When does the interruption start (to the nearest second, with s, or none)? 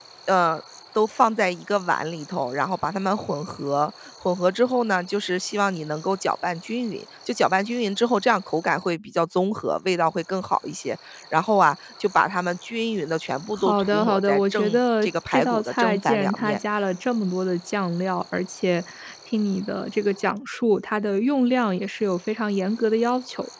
14 s